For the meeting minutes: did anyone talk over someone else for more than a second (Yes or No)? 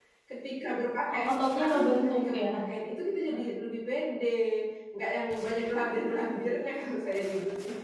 Yes